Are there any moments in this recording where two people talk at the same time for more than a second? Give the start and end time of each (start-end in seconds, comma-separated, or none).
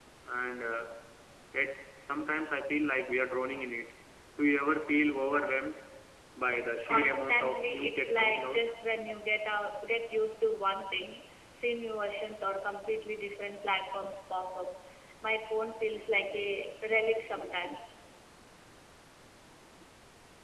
6.9-8.6